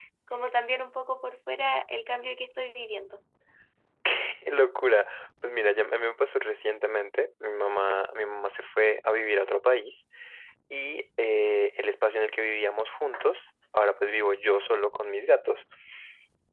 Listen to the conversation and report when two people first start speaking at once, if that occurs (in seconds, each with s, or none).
none